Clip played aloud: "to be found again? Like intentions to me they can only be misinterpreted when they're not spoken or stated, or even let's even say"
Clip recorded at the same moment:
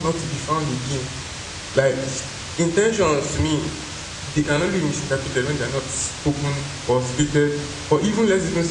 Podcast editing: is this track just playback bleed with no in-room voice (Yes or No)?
Yes